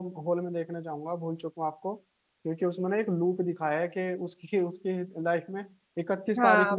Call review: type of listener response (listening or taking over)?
taking over